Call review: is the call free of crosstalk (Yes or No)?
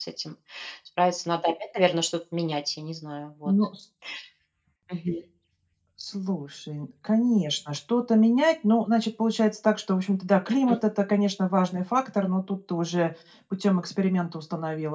Yes